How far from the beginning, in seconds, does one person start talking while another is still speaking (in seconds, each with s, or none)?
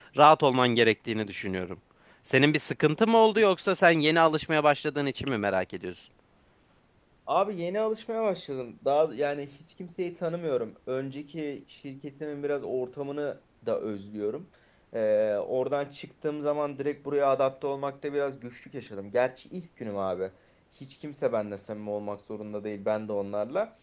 none